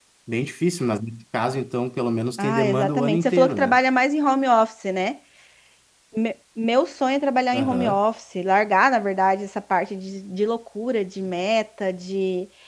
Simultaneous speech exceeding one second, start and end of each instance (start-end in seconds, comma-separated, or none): 2.4-3.8